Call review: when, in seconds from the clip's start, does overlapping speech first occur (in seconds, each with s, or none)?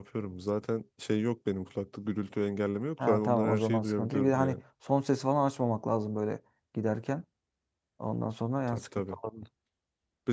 3.0 s